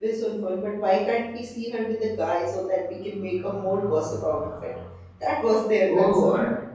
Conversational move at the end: taking over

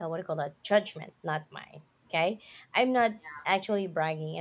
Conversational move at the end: listening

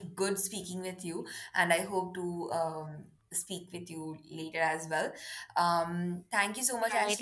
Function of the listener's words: taking over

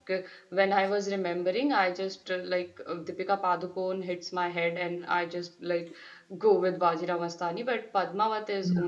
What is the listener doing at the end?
listening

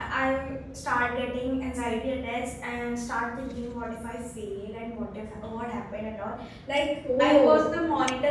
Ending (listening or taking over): listening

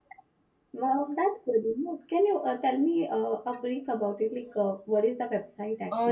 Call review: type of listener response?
taking over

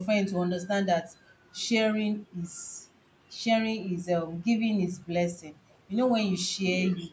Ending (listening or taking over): listening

